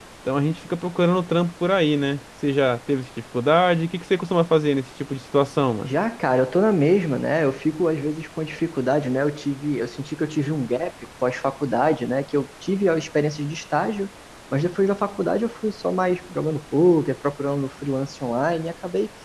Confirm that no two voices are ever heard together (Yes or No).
Yes